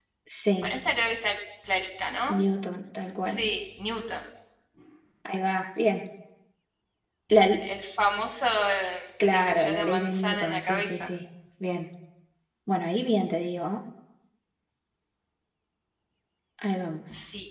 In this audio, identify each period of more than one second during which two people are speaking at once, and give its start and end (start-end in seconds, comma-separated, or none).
9.2-11.1